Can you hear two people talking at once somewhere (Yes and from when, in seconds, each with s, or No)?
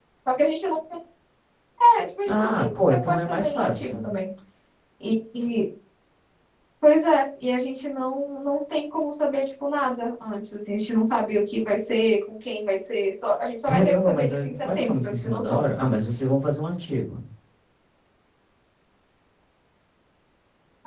Yes, from 2.3 s